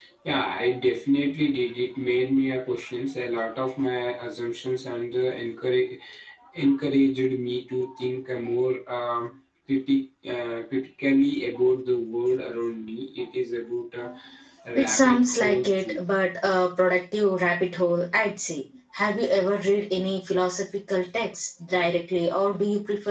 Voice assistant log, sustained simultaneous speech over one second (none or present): present